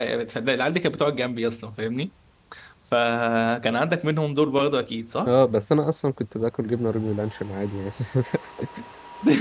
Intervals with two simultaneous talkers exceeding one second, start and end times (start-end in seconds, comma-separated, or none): none